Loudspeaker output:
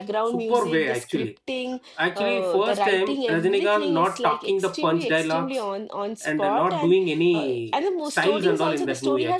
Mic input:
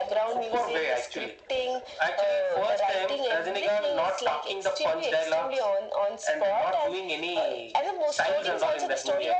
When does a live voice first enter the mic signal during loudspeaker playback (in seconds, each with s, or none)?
none